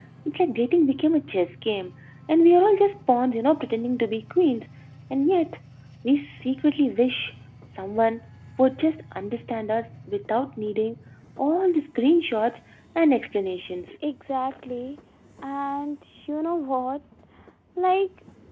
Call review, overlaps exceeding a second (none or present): none